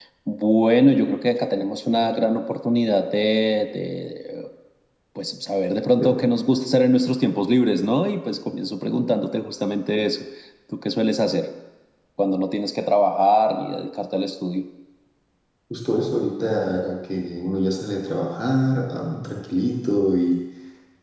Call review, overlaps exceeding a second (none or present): none